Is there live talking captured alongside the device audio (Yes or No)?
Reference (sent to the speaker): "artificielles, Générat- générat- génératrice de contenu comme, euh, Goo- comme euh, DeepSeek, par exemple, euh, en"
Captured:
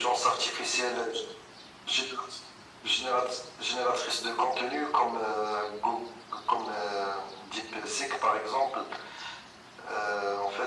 No